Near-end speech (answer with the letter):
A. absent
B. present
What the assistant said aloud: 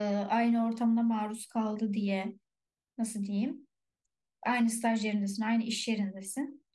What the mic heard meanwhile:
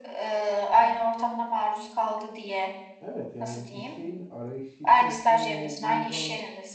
B